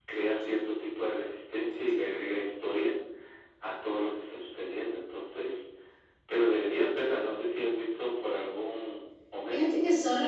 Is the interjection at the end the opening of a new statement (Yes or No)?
Yes